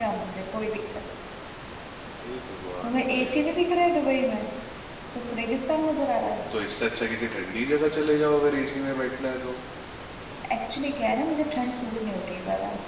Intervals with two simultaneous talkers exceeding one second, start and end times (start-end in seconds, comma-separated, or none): none